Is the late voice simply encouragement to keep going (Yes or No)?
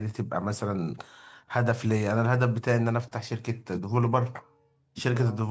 Yes